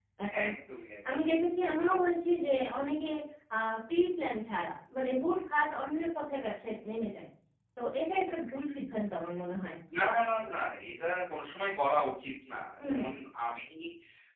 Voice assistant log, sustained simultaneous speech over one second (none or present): none